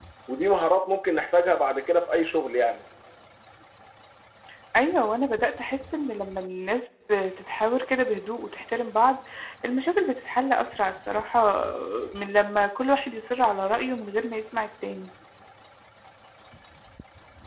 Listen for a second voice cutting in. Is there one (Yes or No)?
No